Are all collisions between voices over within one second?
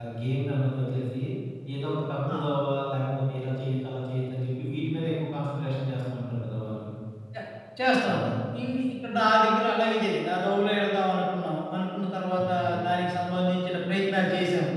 Yes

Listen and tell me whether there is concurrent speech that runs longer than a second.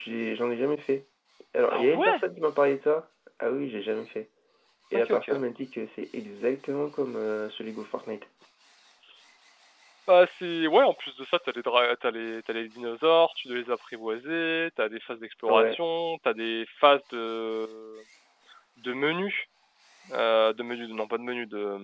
No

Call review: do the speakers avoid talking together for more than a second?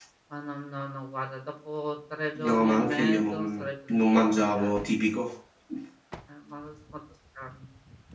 No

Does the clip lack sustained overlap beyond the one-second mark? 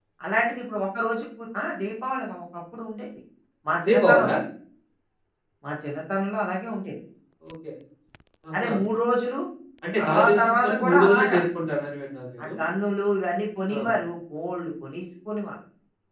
No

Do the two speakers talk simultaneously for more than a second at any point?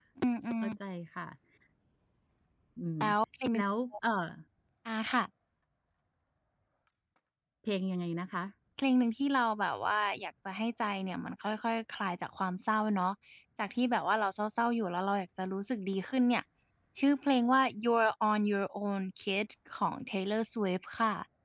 No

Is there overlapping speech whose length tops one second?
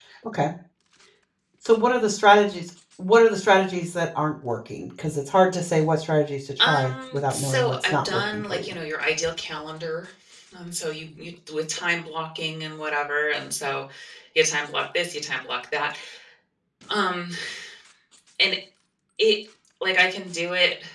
Yes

